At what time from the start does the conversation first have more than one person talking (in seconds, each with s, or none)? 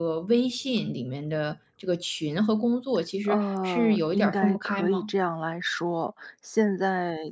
3.3 s